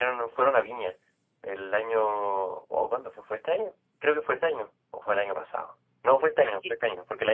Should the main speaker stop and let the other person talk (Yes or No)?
No